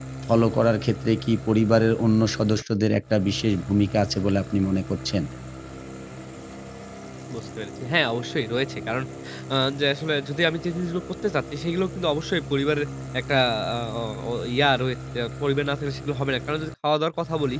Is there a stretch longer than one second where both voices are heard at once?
No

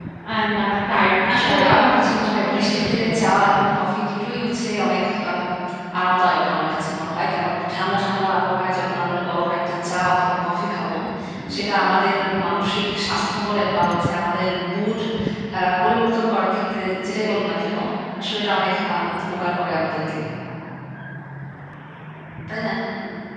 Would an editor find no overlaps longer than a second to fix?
No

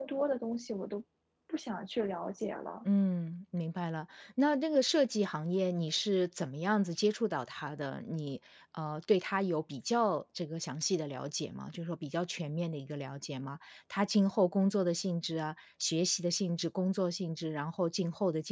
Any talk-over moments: No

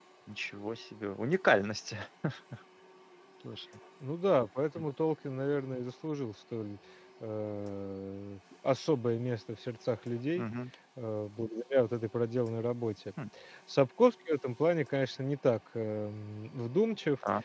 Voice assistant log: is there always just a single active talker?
Yes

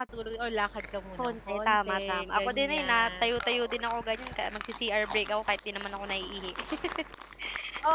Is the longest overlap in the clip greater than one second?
Yes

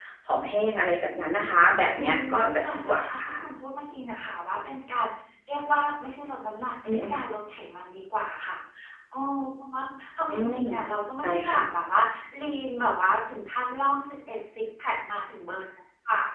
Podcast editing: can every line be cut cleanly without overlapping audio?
No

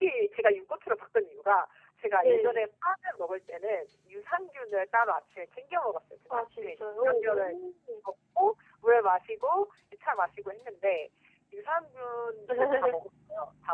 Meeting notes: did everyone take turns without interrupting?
No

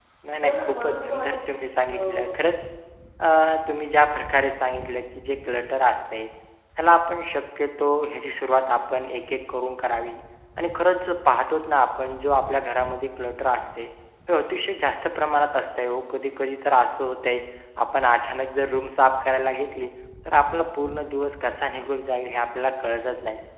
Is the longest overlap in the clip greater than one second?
Yes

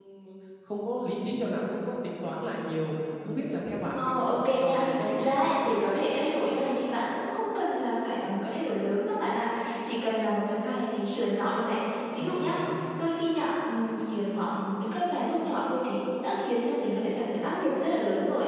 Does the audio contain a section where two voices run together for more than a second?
Yes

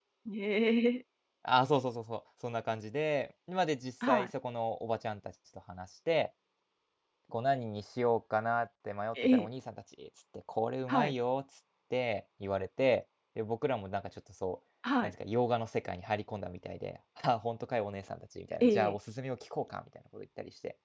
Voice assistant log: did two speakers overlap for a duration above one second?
No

